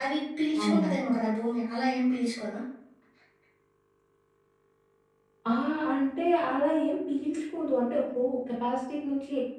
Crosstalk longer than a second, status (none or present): none